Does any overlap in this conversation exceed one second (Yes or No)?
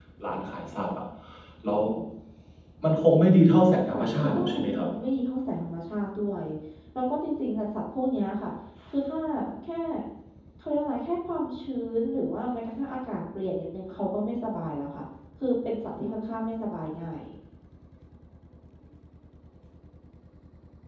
Yes